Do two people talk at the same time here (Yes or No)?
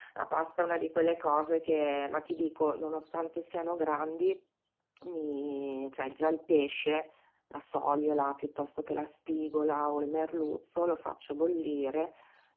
No